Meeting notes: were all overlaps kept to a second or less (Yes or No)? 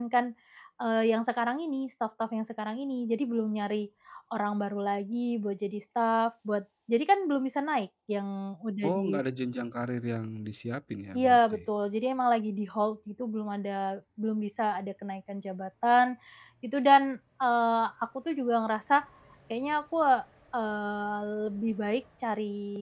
Yes